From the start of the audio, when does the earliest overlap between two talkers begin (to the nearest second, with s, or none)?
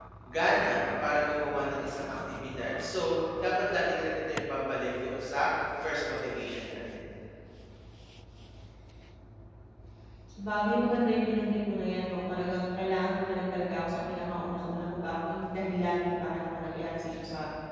none